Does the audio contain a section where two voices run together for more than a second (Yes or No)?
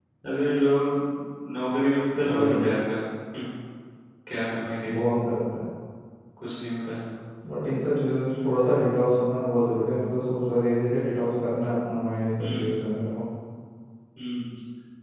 No